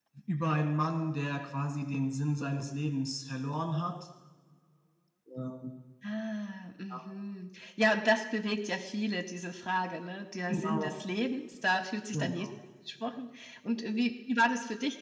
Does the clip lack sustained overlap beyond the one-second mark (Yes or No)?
Yes